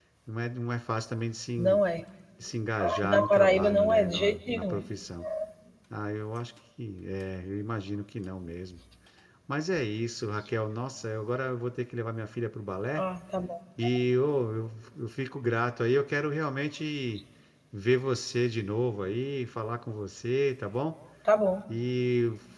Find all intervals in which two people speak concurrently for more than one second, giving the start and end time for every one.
2.8-4.8

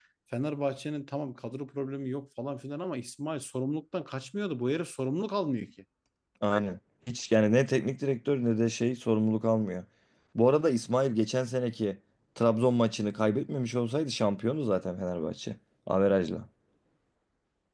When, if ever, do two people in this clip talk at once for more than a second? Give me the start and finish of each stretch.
none

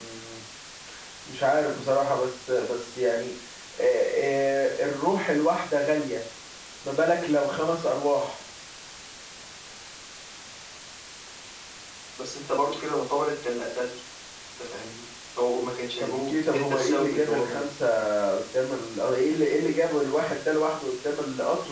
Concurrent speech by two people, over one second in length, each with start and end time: 16.0-17.6

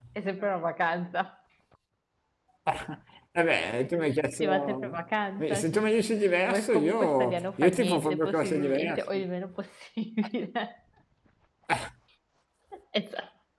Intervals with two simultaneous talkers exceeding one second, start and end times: 6.5-9.0

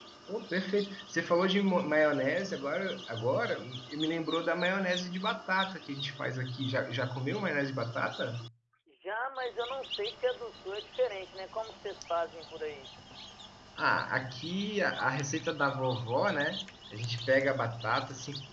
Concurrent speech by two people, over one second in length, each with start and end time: none

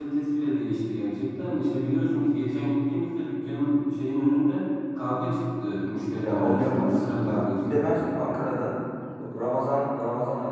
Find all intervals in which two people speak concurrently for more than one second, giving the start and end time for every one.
6.2-8.2

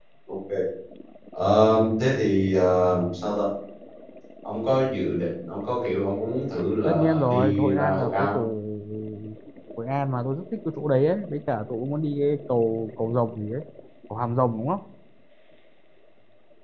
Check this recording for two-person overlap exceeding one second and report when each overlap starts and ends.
6.8-8.4

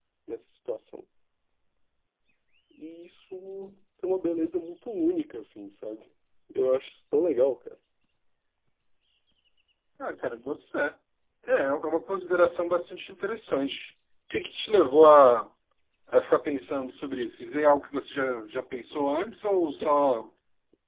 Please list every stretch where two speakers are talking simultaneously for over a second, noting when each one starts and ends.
none

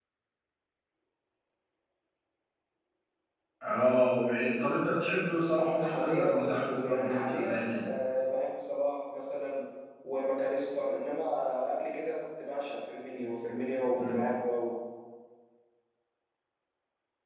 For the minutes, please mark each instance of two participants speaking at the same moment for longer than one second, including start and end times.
5.8-7.8

